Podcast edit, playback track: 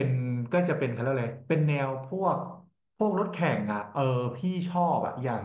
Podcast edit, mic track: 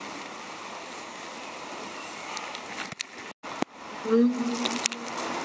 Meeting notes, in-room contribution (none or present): present